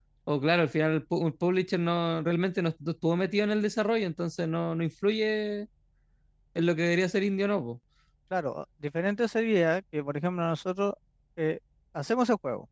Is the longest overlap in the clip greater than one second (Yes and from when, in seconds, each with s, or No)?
No